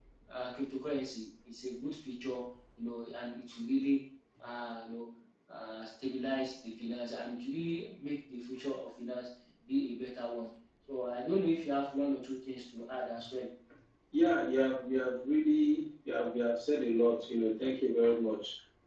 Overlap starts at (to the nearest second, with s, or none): none